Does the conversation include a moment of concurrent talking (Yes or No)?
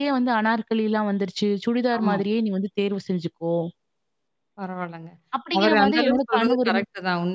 Yes